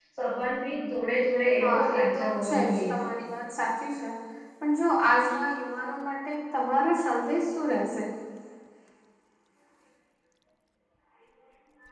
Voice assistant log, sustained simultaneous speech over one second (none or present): present